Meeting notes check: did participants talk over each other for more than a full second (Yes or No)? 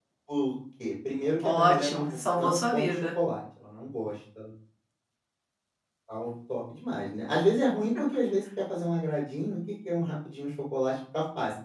Yes